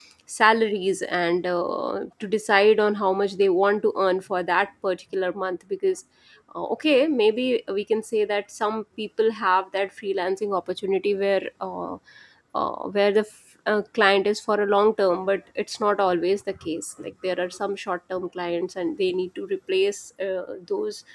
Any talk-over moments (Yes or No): No